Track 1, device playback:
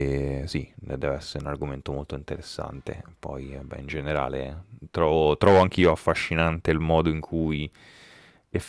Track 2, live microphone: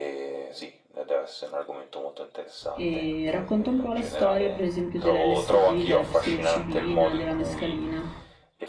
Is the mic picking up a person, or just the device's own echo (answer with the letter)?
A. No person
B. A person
B